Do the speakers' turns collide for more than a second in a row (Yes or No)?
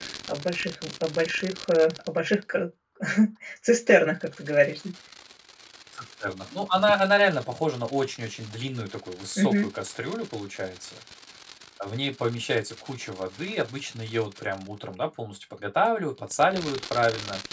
No